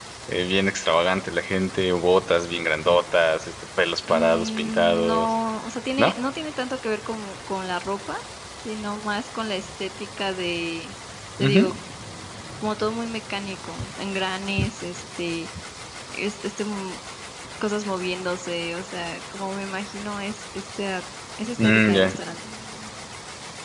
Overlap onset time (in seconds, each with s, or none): 4.1 s